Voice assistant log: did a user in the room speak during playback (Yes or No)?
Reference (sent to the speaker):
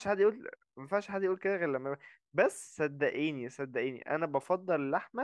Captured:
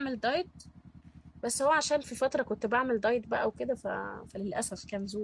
Yes